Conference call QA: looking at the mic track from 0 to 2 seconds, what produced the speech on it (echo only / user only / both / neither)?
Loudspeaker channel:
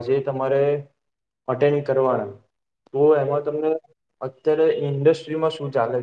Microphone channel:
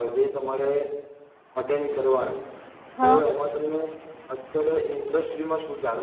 echo only